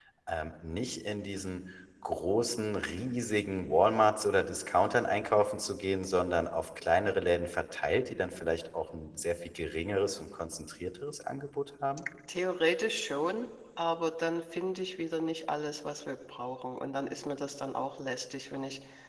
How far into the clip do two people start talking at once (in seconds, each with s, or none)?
none